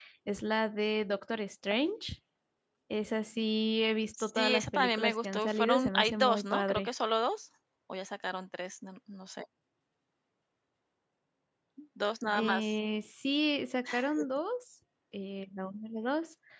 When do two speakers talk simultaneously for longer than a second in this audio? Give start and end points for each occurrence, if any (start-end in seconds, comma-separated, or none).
4.2-6.9